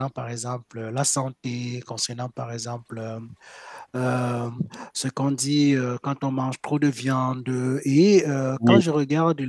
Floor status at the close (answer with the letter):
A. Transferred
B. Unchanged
B